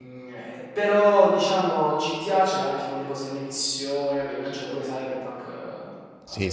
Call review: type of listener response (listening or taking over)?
taking over